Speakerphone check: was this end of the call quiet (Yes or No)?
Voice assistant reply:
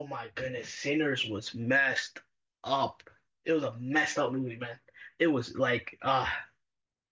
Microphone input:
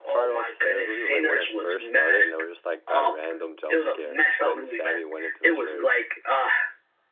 No